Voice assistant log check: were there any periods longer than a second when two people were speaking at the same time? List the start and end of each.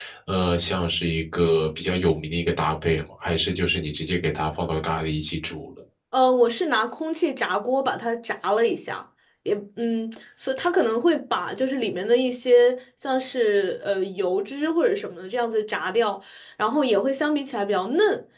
none

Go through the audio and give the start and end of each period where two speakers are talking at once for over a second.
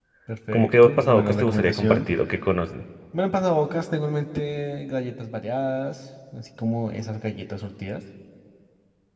0.5-2.1

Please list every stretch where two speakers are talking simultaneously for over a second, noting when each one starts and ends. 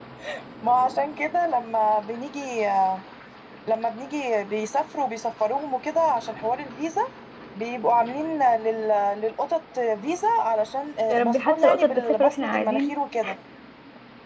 11.1-12.9

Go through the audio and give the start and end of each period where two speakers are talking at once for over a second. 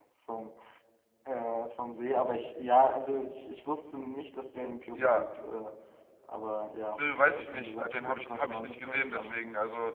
6.9-9.4

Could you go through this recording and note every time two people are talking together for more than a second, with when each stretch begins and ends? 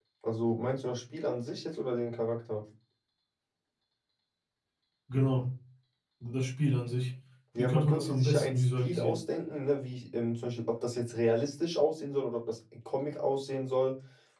7.6-9.2

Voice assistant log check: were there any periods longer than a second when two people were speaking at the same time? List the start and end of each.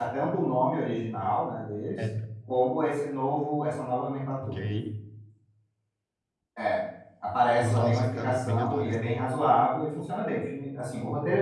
7.6-9.2

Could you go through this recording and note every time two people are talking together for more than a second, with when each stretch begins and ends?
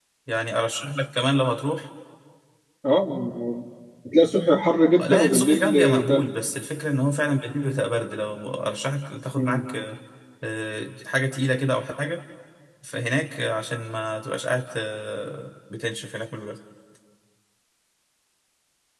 5.0-6.3

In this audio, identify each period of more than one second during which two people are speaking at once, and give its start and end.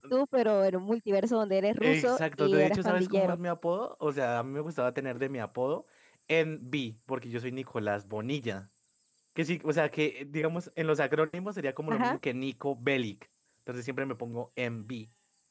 1.8-3.4

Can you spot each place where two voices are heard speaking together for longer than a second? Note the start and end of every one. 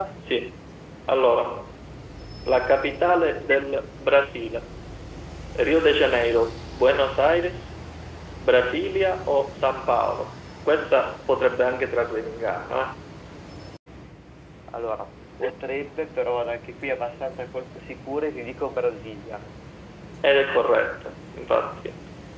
none

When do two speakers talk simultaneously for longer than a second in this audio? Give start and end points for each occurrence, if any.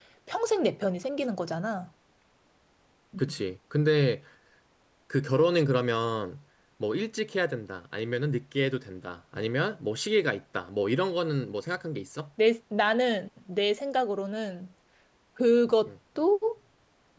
none

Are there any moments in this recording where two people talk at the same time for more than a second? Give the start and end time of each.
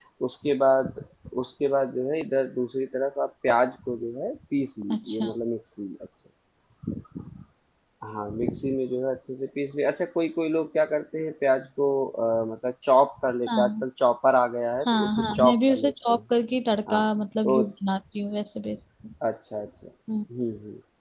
14.9-16.2

